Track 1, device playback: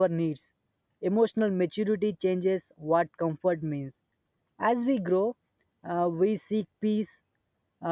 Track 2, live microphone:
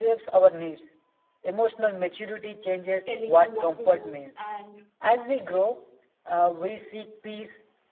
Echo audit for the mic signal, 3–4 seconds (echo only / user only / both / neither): both